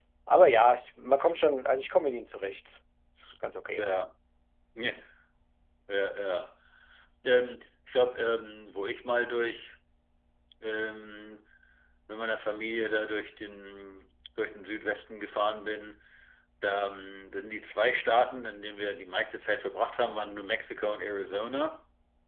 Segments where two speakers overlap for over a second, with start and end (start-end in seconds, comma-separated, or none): none